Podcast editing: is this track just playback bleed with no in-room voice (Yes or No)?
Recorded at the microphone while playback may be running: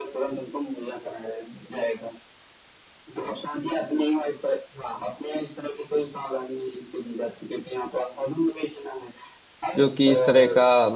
No